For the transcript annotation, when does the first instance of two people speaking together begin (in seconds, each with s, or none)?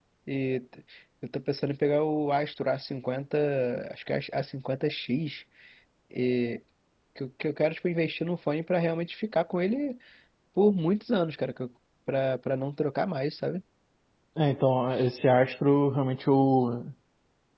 none